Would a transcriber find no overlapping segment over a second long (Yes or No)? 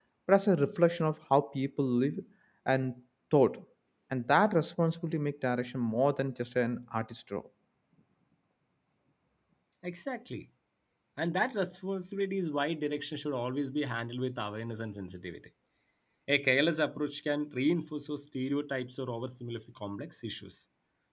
Yes